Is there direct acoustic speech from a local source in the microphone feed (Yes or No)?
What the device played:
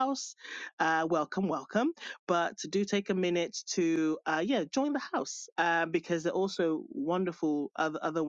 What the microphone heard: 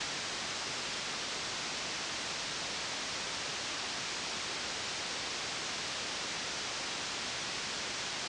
No